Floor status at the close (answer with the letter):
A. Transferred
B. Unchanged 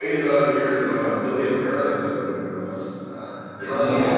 A